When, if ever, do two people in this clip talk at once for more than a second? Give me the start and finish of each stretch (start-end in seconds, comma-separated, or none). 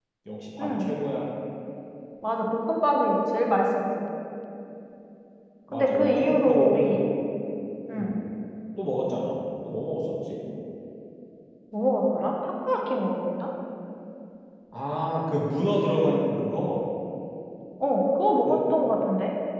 5.7-7.0